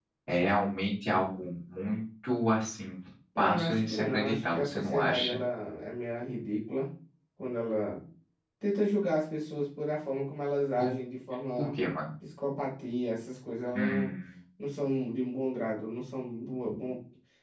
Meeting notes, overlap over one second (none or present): present